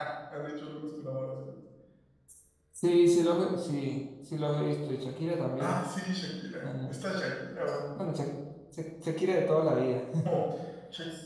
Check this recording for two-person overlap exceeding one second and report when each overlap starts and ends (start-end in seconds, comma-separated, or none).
none